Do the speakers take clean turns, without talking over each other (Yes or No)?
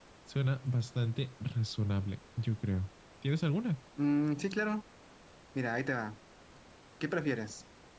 Yes